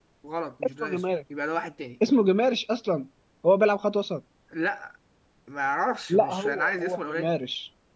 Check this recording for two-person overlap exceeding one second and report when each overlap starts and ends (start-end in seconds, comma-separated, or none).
6.1-7.3